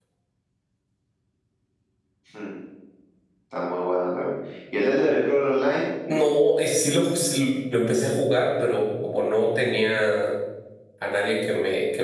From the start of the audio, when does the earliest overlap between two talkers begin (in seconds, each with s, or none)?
none